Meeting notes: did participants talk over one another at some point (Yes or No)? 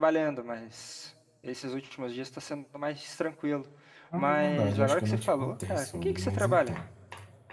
Yes